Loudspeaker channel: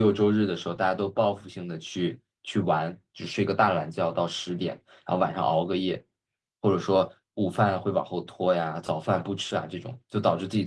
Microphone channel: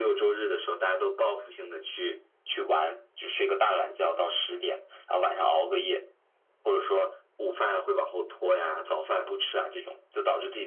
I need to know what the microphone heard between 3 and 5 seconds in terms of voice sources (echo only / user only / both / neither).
echo only